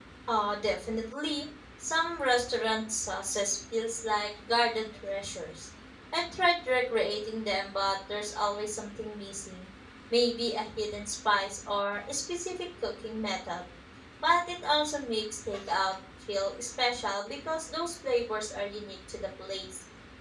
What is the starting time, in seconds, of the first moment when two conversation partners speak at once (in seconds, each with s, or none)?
none